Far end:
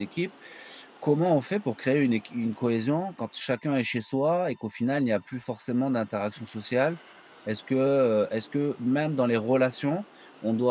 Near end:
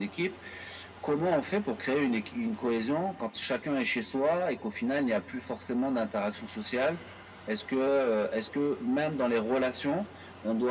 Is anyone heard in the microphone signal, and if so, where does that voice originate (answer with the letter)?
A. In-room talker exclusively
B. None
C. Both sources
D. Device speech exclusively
D